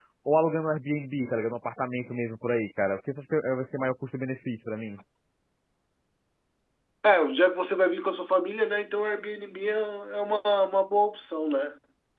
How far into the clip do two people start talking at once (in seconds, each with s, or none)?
none